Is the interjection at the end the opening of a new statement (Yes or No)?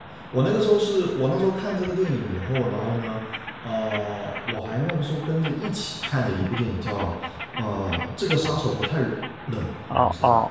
Yes